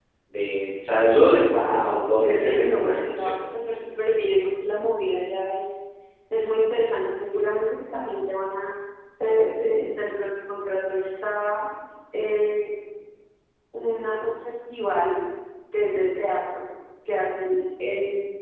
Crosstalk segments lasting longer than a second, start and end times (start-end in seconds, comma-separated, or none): 1.5-3.4